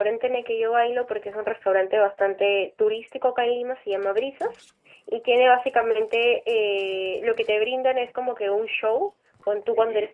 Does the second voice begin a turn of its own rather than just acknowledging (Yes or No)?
No